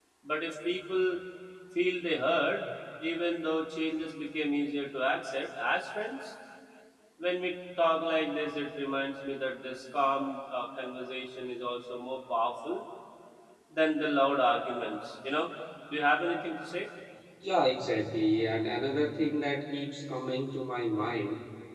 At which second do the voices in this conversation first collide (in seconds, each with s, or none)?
none